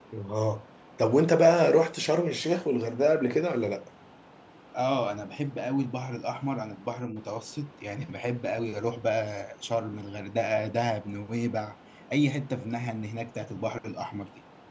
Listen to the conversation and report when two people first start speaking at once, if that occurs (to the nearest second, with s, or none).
none